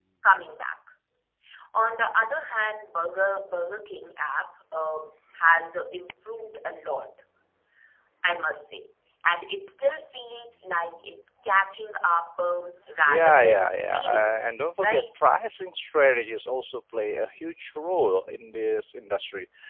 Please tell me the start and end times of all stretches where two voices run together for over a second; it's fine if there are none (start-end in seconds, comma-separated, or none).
13.0-14.3